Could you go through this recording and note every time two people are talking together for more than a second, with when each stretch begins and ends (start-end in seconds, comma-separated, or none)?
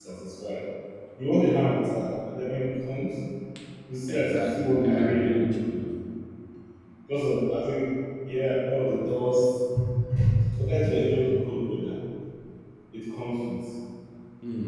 4.1-5.3